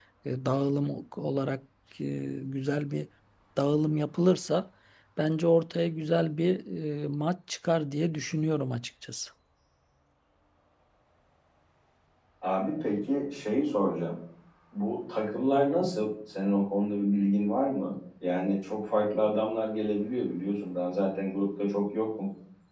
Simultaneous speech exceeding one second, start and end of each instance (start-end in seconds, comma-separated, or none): none